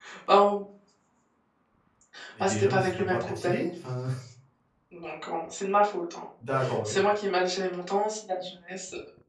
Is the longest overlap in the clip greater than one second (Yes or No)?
Yes